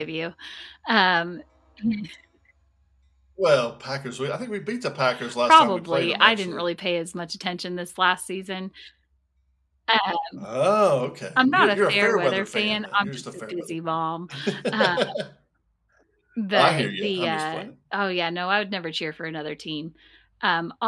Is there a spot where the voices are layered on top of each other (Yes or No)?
Yes